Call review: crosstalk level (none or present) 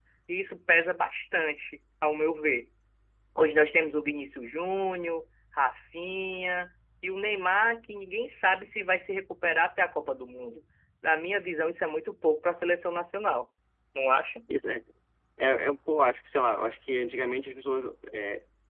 none